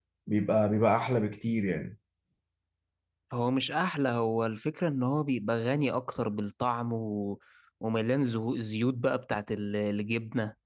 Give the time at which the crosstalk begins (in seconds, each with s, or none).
none